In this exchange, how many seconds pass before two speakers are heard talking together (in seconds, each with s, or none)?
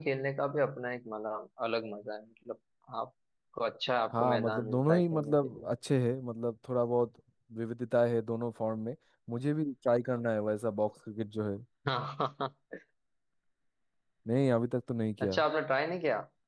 4.1 s